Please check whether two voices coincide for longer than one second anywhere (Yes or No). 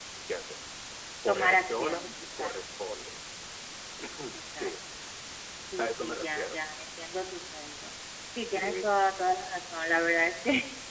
Yes